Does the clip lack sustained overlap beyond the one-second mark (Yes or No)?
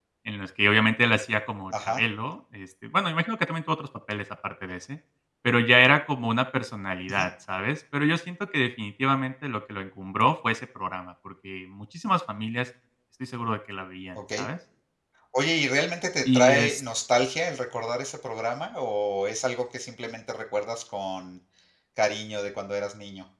Yes